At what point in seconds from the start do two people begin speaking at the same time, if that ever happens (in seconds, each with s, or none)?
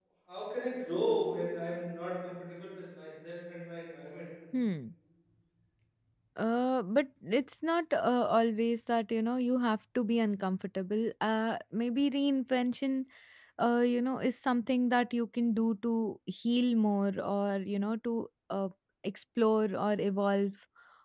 none